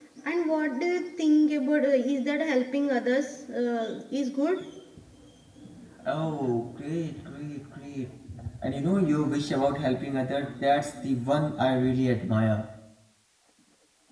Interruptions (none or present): none